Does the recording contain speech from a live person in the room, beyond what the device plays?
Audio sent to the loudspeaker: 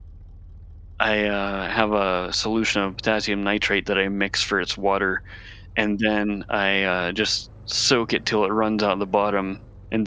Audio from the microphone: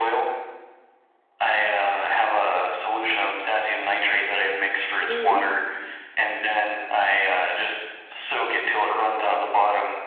Yes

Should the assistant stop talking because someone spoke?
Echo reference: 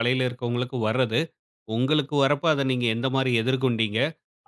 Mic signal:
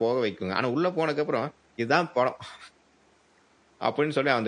Yes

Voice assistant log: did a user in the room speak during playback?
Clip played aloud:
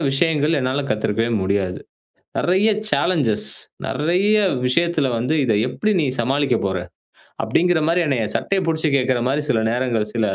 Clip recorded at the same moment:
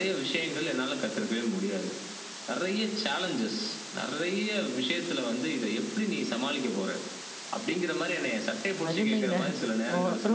Yes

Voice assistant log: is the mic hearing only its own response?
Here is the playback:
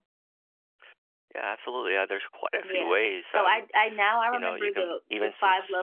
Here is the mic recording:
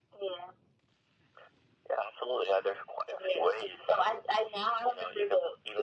Yes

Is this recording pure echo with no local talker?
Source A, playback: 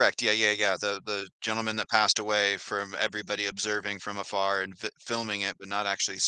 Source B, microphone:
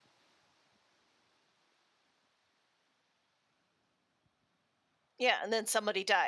No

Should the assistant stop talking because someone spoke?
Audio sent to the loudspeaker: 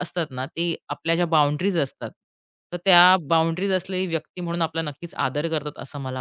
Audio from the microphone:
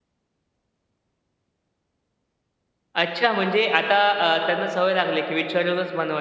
Yes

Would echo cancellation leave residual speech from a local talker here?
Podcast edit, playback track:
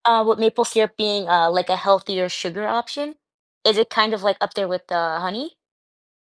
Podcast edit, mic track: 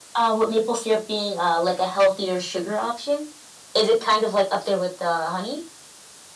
No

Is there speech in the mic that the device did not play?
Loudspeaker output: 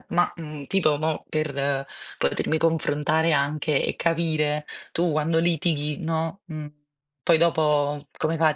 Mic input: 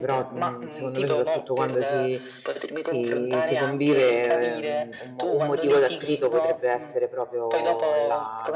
Yes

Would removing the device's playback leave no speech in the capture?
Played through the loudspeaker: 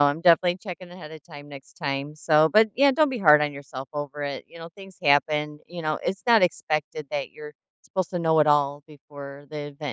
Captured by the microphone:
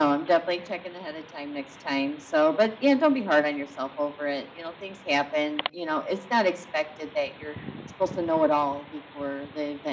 Yes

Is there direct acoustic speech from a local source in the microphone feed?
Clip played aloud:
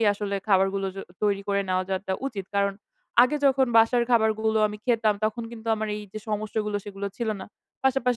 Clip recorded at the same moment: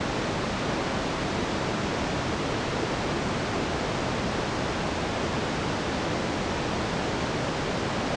No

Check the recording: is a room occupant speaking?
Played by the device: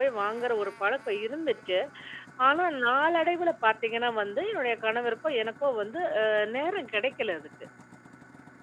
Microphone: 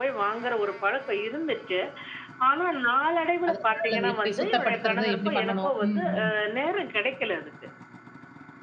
Yes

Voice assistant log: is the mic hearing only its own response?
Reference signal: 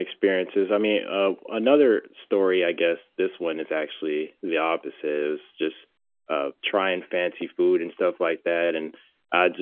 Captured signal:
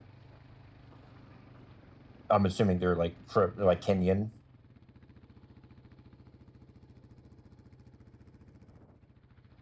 No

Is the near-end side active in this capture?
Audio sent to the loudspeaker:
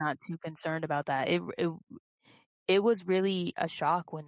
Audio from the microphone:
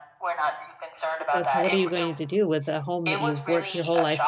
Yes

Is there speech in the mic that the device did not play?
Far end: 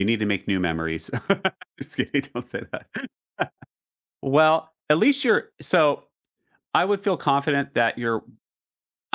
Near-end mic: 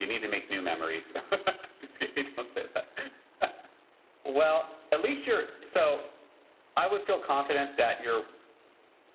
No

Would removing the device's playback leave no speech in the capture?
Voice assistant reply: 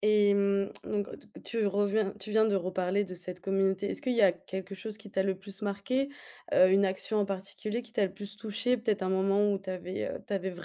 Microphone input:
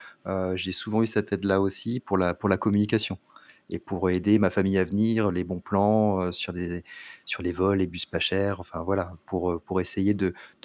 No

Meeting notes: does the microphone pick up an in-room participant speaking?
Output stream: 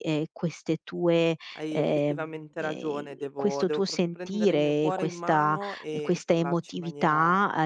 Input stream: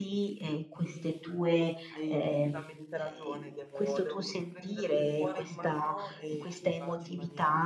No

